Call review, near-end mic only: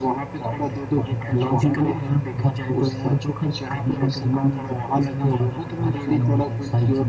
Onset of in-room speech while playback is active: none

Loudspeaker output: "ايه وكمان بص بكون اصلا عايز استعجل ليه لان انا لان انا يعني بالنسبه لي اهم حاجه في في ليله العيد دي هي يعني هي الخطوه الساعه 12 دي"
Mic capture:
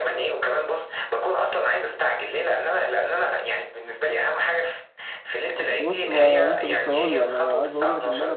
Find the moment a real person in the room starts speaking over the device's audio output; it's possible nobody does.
5.6 s

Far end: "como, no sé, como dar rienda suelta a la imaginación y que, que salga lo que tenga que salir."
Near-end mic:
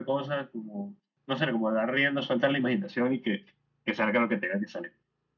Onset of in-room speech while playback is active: none

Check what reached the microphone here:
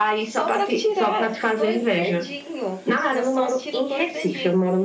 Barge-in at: none

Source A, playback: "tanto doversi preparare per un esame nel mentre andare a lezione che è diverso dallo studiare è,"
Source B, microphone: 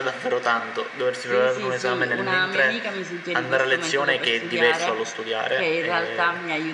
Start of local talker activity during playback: 1.2 s

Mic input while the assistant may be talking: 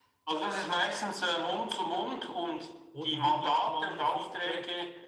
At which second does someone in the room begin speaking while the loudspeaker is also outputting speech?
2.9 s

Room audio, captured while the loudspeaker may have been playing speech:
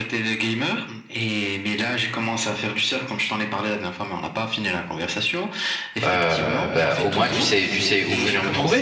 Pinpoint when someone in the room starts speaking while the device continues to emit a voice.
6.1 s

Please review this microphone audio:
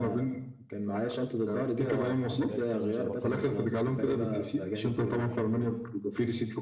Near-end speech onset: 1.9 s

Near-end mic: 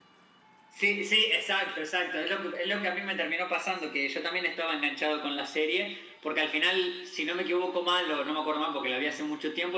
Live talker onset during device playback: none

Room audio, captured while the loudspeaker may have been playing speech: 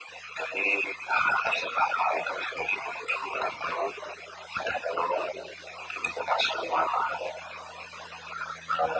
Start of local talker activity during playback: none

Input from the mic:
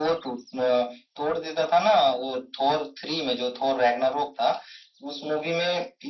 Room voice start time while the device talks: none

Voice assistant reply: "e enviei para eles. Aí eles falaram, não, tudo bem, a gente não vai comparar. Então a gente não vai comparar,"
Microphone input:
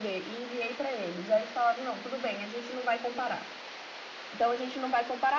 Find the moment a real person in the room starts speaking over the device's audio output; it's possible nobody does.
none

